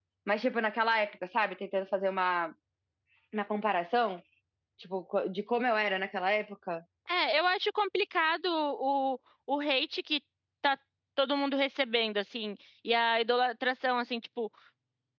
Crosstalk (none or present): none